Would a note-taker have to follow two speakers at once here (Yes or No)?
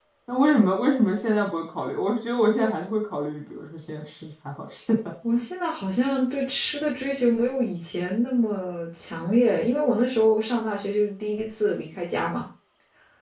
No